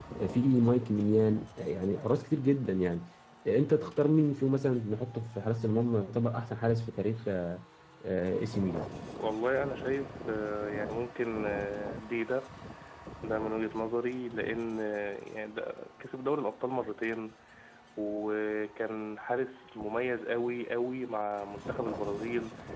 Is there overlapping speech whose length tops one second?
No

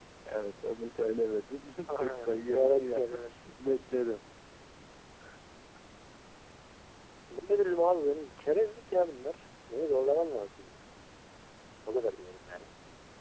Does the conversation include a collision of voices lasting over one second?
Yes, from 1.8 s

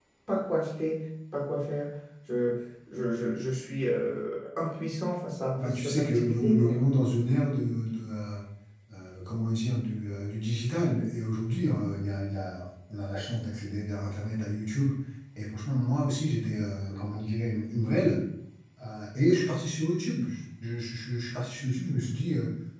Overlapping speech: Yes, from 5.6 s

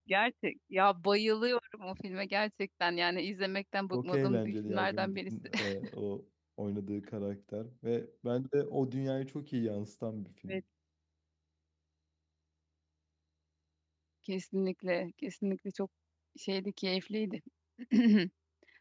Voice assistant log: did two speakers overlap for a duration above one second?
Yes, from 3.9 s

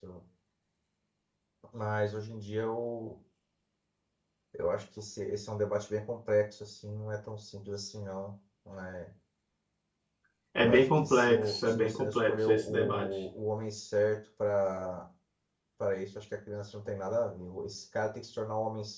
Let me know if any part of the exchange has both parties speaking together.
Yes, from 10.6 s

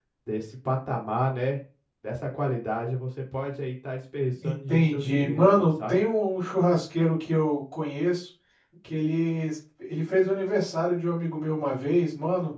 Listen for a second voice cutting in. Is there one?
Yes, from 4.4 s

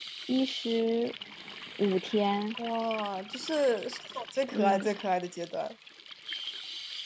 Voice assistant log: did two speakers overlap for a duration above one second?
No

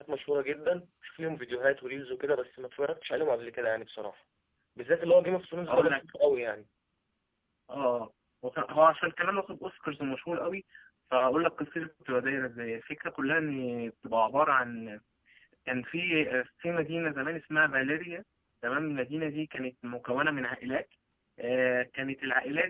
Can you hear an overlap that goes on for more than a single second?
No

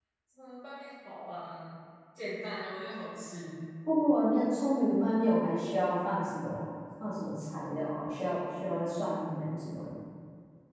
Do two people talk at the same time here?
No

